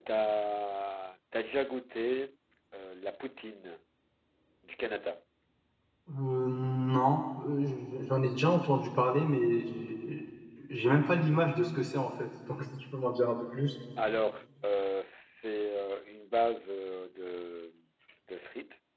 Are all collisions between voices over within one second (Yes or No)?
Yes